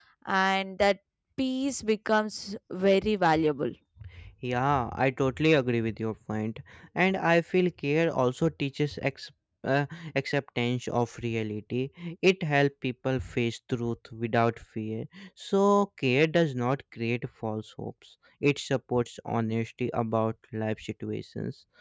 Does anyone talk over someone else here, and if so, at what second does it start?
none

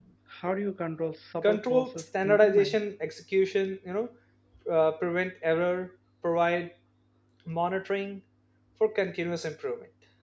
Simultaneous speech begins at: 1.4 s

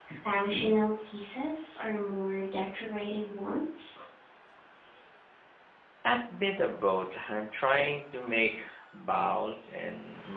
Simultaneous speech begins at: none

